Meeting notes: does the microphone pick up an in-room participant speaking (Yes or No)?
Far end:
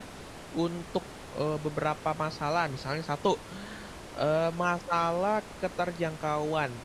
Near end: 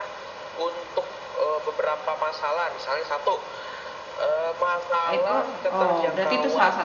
Yes